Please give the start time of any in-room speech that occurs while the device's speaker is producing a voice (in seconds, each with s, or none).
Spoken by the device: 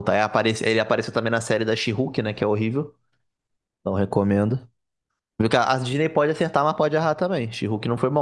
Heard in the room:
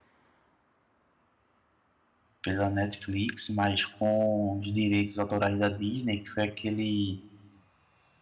2.4 s